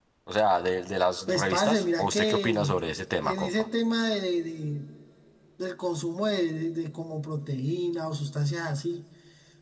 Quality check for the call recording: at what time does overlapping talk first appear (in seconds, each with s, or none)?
1.3 s